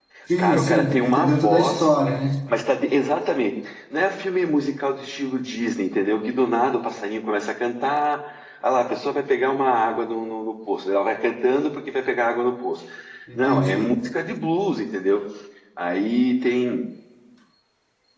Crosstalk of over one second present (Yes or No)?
Yes